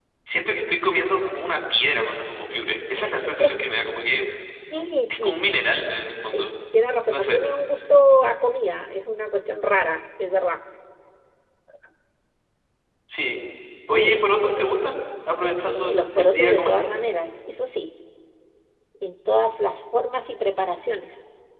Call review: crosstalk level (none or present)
present